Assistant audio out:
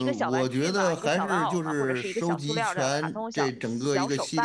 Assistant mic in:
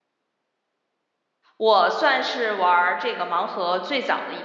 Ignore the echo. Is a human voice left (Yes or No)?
Yes